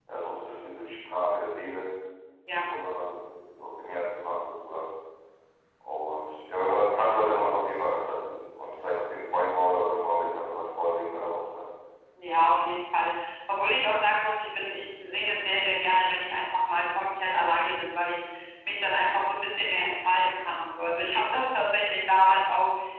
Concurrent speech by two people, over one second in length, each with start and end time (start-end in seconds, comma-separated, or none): none